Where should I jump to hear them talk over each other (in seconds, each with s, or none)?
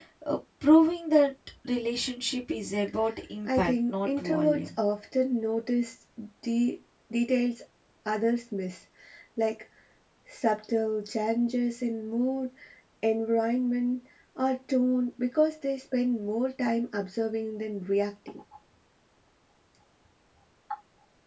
3.5 s